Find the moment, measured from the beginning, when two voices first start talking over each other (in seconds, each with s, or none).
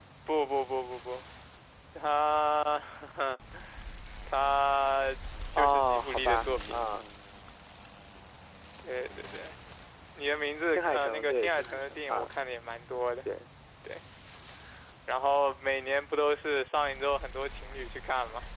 5.6 s